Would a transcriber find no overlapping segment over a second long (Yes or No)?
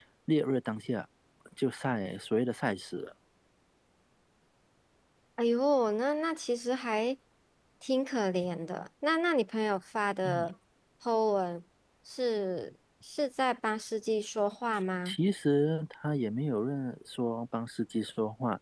Yes